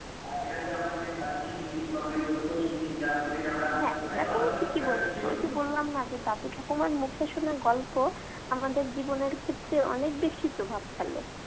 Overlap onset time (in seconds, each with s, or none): 4.1 s